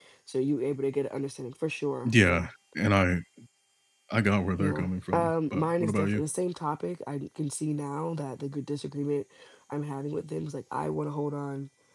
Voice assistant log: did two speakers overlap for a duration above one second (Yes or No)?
Yes